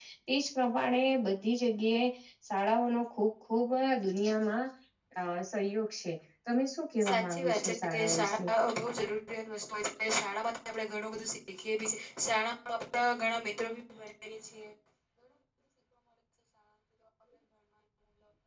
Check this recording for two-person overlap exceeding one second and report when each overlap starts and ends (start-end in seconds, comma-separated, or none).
7.0-8.5